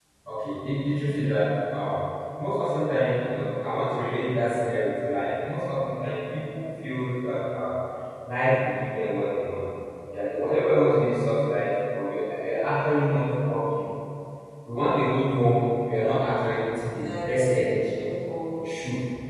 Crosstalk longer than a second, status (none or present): present